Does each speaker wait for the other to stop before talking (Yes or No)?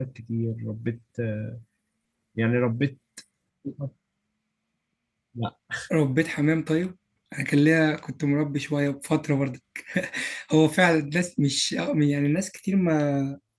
Yes